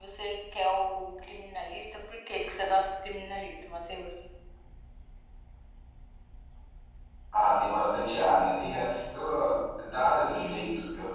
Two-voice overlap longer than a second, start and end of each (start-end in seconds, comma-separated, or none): none